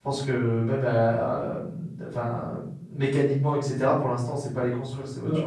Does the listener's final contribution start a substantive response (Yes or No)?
Yes